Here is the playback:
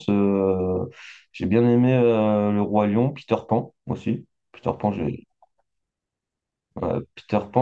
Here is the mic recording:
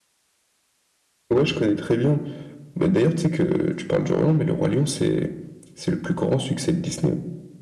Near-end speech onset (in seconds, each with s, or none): 1.3 s